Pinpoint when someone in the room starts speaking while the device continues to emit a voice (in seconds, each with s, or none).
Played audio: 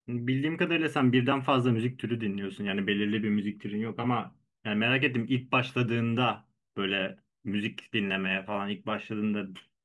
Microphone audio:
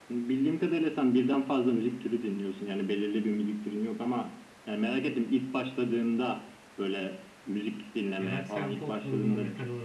8.2 s